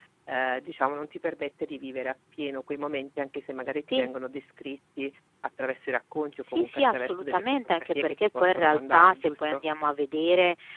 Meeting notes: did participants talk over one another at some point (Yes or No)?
Yes